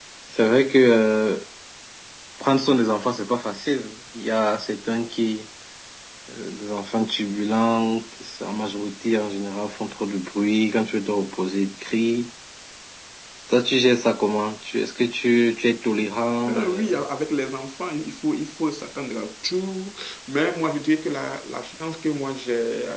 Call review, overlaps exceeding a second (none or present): none